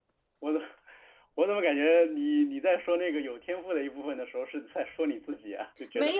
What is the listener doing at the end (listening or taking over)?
taking over